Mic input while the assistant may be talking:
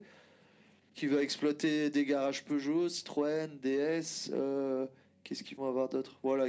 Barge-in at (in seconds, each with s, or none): none